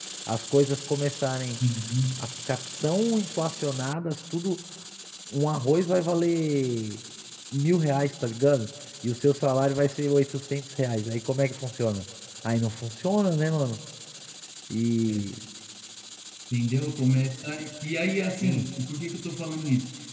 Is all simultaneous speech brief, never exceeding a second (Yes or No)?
Yes